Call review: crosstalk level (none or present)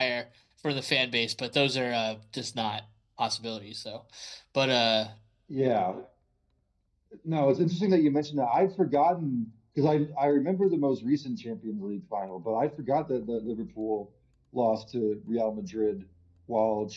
none